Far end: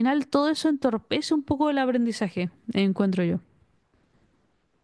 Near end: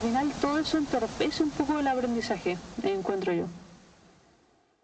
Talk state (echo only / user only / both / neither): echo only